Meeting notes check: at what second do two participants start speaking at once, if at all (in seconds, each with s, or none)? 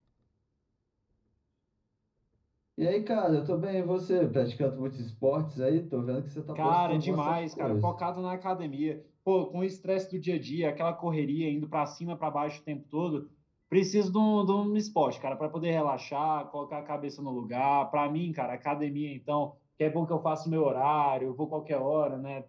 6.6 s